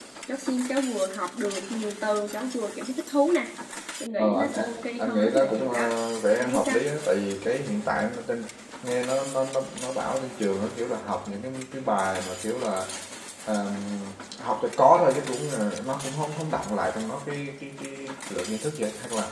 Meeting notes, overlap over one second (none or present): present